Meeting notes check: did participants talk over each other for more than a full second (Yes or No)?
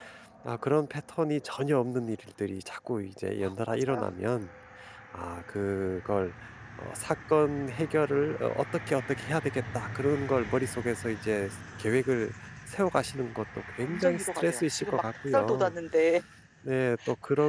Yes